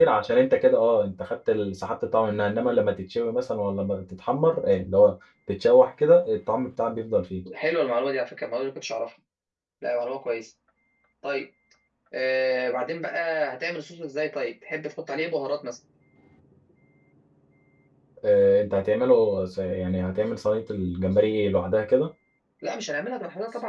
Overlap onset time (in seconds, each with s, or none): none